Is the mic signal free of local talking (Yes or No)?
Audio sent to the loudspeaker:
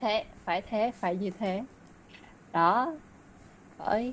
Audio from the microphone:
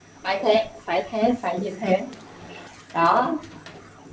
Yes